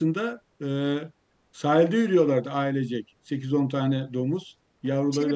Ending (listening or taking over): taking over